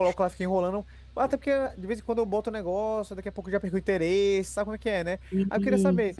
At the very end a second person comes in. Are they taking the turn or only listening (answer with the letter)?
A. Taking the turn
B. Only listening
B